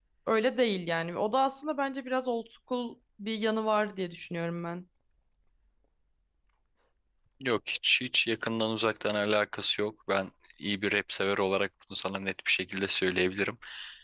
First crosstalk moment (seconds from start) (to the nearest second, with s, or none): none